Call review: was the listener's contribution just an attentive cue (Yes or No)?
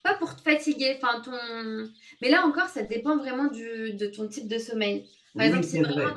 No